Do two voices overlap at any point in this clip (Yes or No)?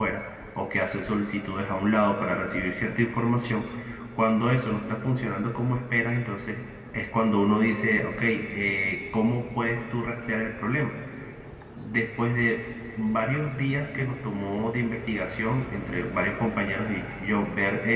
No